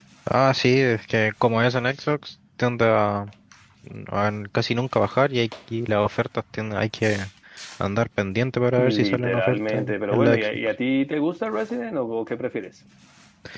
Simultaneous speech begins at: 9 s

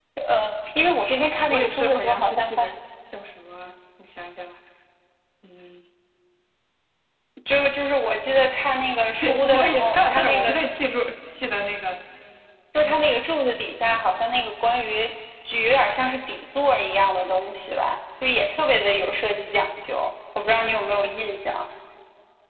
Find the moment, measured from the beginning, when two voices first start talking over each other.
2 s

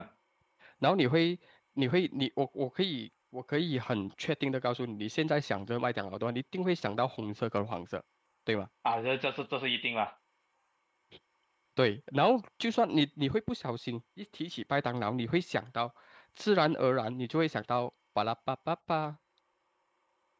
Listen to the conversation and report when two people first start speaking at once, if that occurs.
none

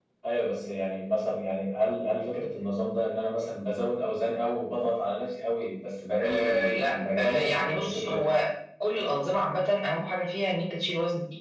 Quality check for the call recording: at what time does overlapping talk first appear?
6 s

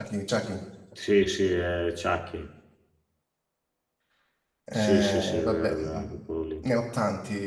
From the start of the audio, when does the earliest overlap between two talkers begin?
5 s

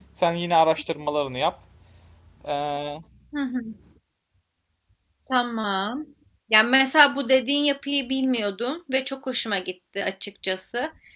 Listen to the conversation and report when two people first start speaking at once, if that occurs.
none

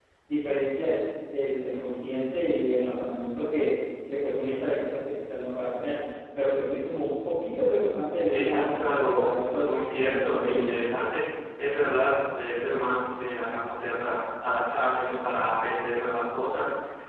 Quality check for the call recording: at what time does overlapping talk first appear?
8 s

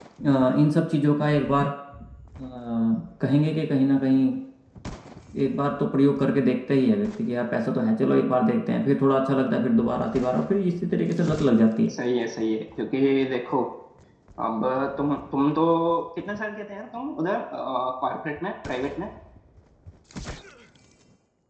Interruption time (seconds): none

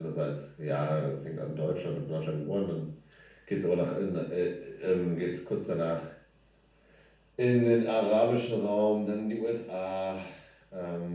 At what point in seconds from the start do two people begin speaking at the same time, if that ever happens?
none

